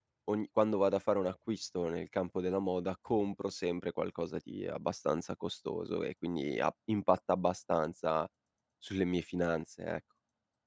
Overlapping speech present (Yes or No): No